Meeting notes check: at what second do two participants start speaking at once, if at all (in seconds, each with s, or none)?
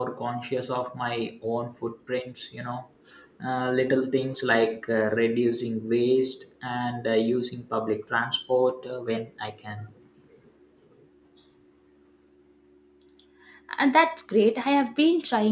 none